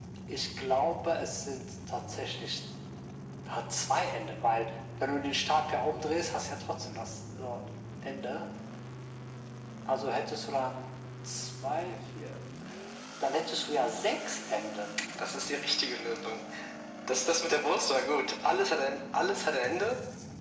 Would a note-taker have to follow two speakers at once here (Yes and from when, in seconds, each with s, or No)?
No